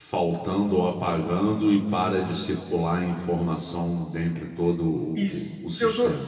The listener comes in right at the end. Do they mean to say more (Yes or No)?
Yes